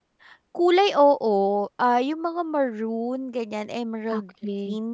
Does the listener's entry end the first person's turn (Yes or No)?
Yes